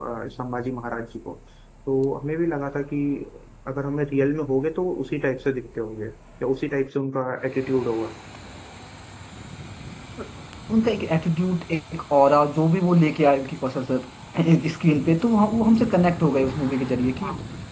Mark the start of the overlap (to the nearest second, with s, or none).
none